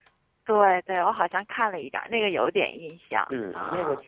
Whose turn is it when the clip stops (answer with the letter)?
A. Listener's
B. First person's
A